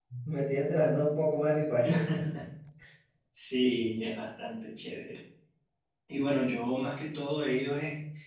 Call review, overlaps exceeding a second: none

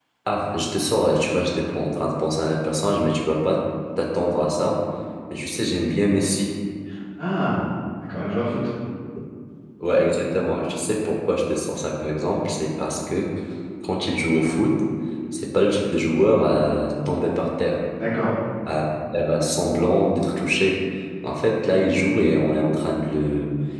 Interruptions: none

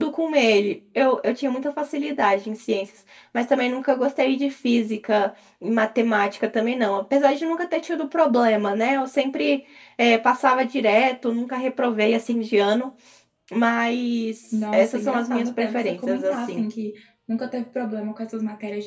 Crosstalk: present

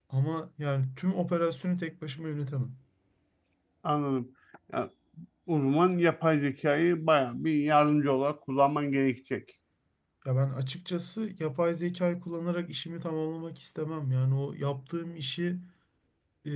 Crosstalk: none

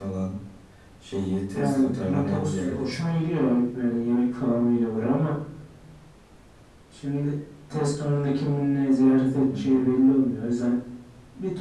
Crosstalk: present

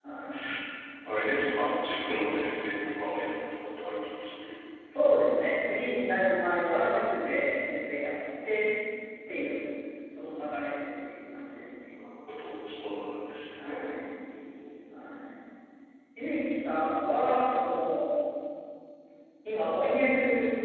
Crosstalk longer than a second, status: none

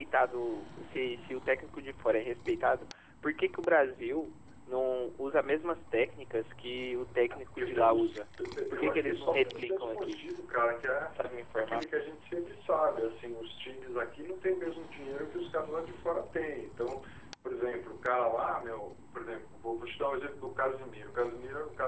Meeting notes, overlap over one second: present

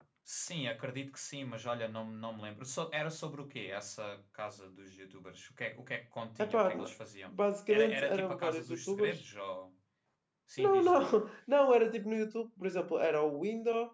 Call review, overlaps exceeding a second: present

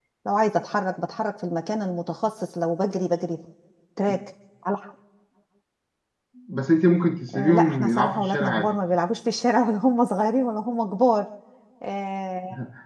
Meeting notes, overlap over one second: present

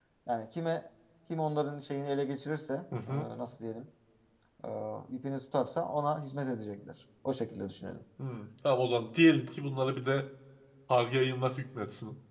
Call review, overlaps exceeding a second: none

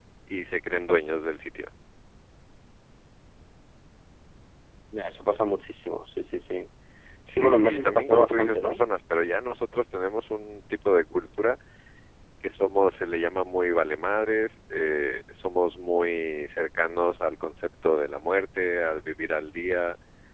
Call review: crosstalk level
present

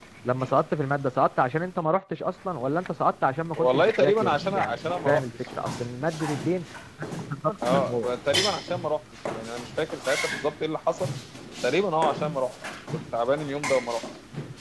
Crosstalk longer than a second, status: present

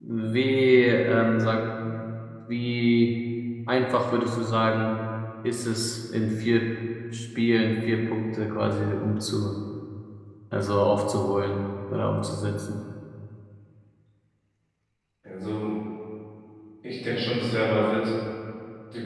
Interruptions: none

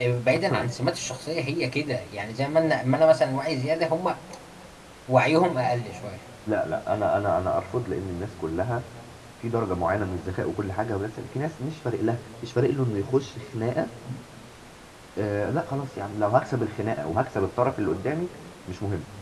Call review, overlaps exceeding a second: none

